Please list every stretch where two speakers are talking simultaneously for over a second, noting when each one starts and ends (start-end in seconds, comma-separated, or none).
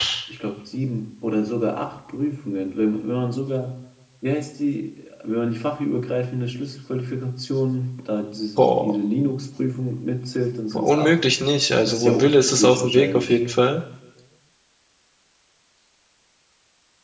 11.8-13.4